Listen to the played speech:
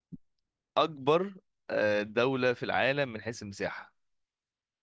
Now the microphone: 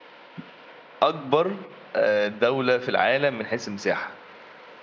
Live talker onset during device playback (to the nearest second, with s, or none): none